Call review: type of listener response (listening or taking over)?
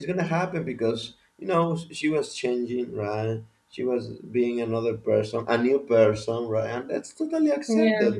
listening